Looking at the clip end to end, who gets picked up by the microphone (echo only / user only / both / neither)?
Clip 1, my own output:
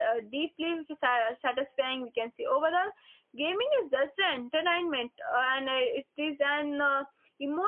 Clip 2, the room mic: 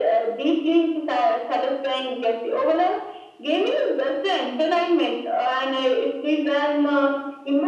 echo only